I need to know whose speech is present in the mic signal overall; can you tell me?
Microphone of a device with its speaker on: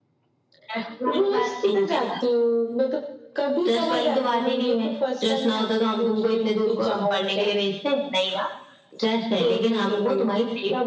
echo only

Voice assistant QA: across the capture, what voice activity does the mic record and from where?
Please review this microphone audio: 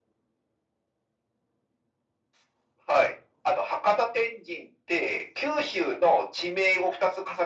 echo only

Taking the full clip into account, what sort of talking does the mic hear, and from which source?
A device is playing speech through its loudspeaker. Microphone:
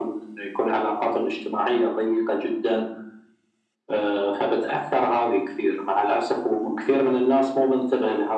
echo only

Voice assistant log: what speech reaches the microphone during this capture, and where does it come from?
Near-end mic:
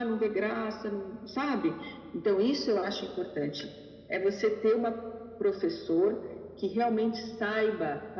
echo only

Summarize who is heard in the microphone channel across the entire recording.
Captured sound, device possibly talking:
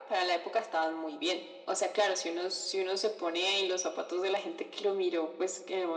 echo only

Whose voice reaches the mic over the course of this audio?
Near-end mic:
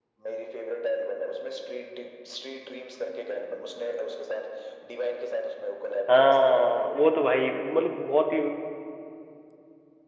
both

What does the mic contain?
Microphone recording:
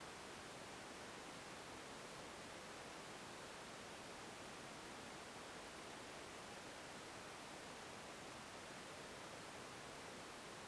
neither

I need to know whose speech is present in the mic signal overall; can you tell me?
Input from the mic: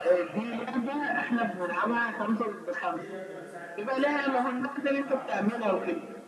both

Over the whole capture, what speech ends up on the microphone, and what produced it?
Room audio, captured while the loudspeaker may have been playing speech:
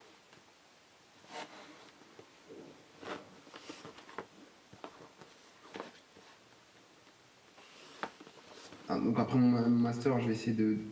user only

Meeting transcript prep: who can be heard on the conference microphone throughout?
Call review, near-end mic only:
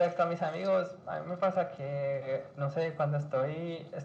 echo only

